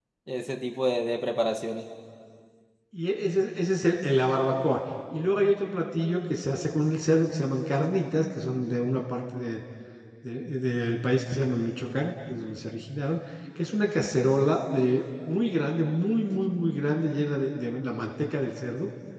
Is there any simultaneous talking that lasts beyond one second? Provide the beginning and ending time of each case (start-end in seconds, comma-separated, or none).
none